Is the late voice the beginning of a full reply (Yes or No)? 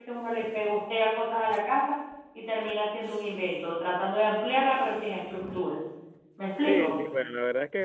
Yes